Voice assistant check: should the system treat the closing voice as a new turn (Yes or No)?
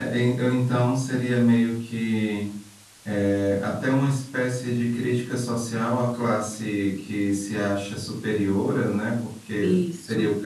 No